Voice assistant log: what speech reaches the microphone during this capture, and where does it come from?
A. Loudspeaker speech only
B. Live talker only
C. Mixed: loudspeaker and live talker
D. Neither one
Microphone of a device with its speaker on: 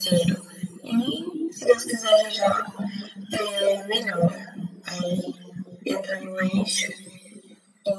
A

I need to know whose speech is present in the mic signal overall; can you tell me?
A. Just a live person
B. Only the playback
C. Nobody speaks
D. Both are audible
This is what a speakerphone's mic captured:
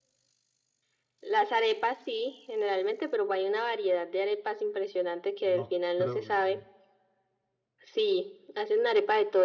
D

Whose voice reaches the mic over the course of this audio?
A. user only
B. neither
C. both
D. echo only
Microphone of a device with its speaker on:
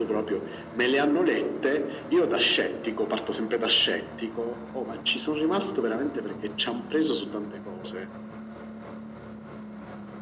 D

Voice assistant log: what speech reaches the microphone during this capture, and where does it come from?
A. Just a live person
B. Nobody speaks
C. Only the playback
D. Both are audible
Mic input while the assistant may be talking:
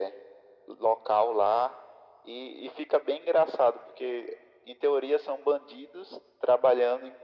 C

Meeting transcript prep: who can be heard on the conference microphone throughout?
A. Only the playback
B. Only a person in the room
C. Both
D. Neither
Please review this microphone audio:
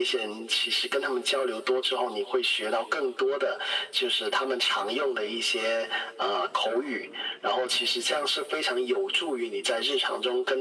A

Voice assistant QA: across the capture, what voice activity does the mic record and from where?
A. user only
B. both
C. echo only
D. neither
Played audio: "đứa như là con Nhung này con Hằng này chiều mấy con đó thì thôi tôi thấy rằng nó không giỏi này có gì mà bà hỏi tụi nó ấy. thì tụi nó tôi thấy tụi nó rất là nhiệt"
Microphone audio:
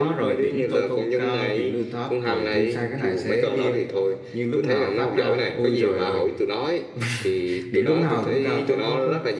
B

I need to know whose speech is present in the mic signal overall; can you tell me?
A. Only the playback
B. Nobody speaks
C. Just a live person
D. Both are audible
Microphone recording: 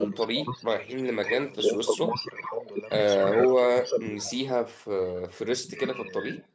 D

